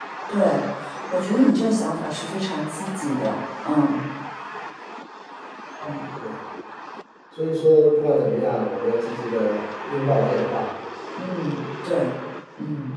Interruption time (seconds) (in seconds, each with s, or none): none